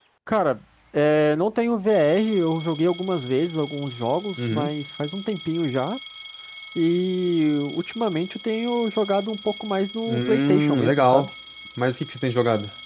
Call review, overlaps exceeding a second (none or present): present